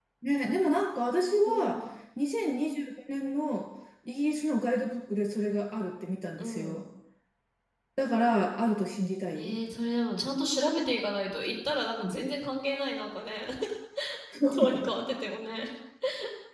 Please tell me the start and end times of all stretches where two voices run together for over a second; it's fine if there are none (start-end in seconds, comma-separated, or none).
none